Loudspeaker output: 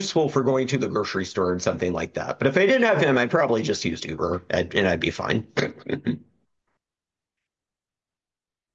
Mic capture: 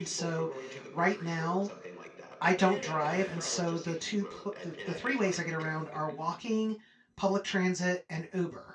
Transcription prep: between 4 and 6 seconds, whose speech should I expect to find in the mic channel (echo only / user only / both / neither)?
both